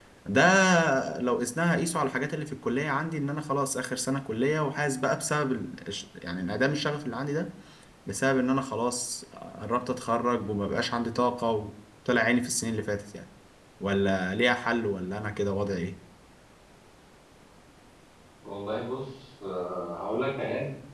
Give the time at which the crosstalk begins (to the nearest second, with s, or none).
none